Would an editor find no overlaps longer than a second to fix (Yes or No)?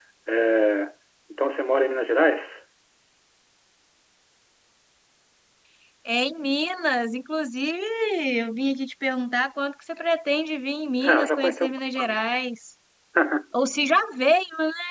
No